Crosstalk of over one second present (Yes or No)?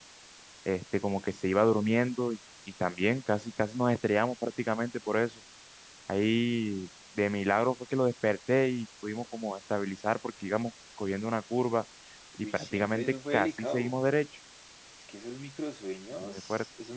Yes